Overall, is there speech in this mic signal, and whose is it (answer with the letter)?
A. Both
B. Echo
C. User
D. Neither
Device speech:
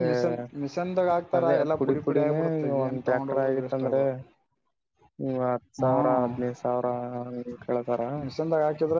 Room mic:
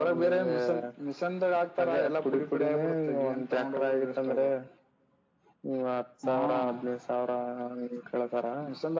B